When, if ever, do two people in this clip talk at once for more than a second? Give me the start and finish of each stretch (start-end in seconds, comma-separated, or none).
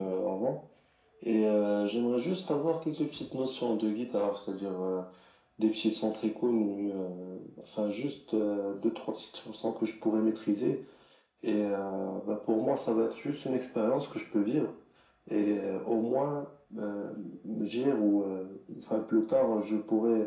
none